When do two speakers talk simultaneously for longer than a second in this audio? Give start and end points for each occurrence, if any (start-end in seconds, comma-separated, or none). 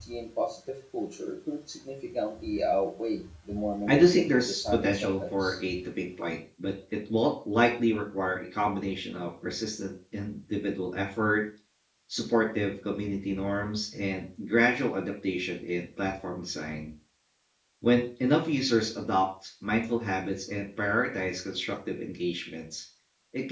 3.9-5.6